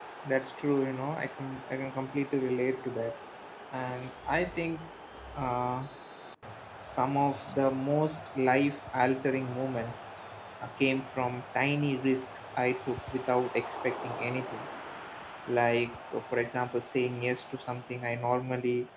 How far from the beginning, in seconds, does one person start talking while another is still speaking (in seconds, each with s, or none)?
none